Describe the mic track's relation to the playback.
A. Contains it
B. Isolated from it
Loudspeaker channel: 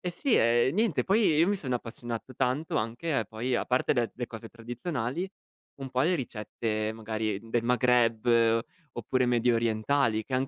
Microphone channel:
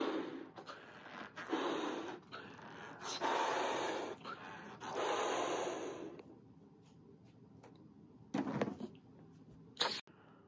B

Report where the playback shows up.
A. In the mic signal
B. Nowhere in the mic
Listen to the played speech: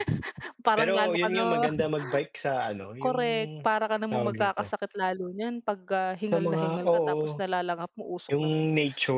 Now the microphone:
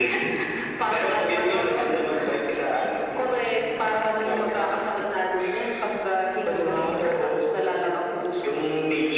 A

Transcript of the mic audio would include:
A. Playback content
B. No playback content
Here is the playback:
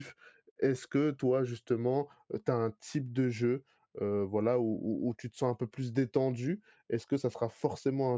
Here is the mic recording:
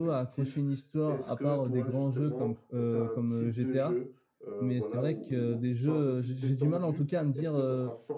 A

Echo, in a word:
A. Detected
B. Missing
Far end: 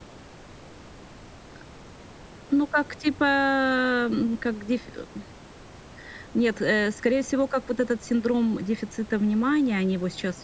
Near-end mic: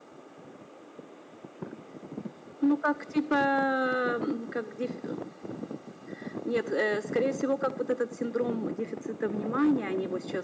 A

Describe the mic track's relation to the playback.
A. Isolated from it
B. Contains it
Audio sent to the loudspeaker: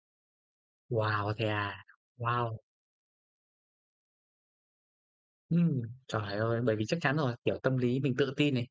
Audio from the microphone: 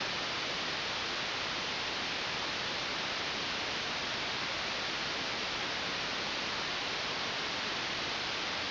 A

